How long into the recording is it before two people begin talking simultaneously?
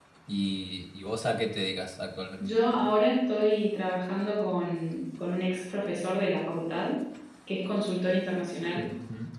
none

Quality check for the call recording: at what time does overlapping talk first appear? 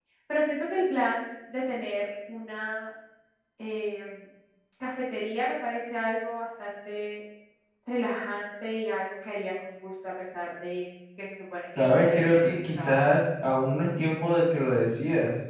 11.8 s

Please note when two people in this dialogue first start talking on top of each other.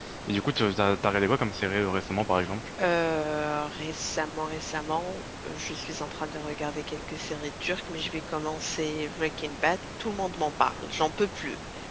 none

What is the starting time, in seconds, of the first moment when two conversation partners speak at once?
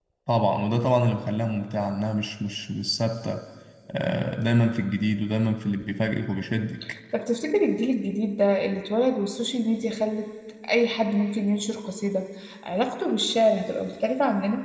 none

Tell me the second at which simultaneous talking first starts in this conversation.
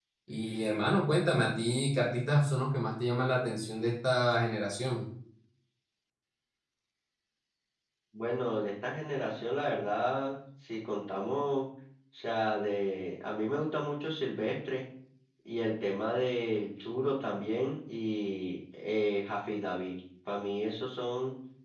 none

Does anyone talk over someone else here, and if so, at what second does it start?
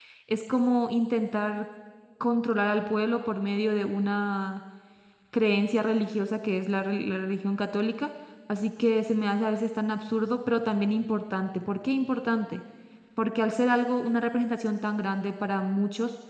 none

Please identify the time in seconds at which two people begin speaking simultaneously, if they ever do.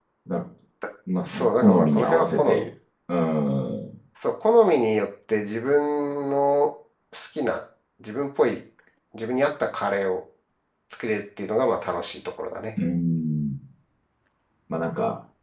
1.2 s

